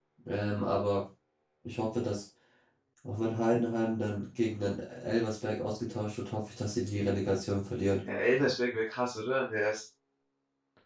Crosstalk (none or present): none